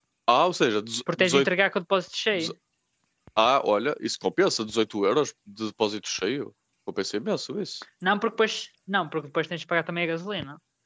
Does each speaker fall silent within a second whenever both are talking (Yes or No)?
Yes